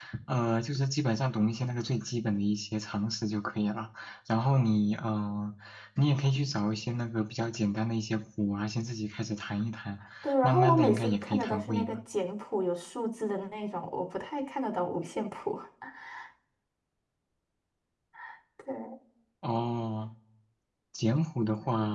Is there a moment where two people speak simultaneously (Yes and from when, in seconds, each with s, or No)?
Yes, from 10.4 s